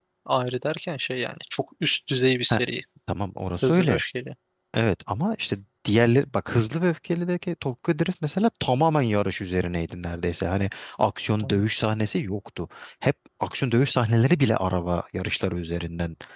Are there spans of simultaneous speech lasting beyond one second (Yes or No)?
No